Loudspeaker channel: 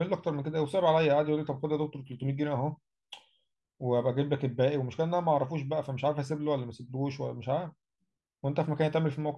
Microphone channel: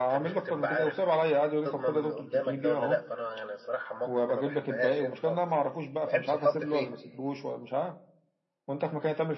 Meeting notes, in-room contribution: present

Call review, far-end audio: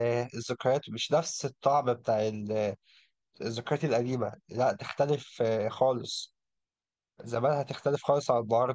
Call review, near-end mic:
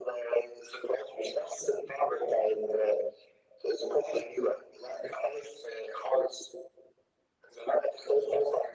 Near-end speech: none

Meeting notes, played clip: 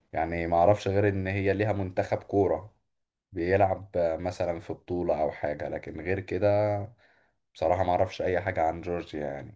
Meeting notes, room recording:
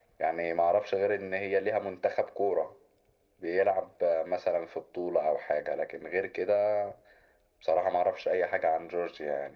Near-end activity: none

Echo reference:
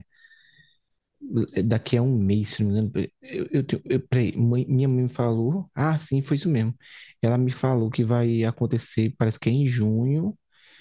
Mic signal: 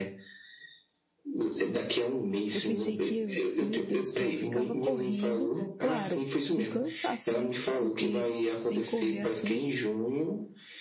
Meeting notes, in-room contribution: present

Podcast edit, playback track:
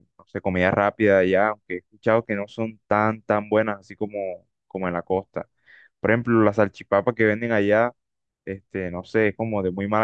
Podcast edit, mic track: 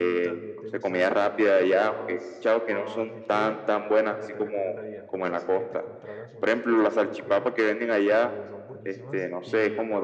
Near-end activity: present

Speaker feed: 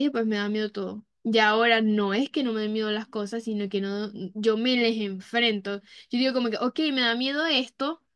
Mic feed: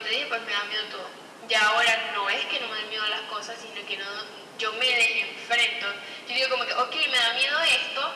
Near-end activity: none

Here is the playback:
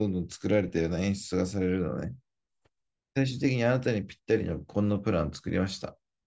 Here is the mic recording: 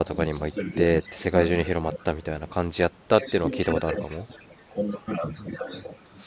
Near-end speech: present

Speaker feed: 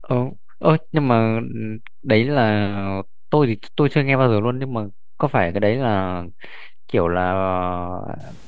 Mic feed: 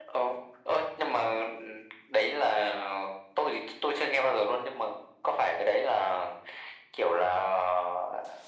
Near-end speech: none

